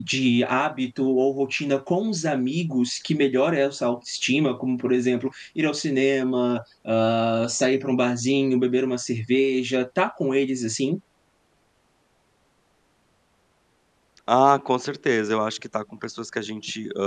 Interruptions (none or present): none